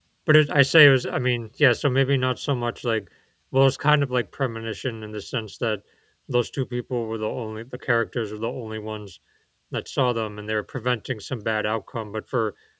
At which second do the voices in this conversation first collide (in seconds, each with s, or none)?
none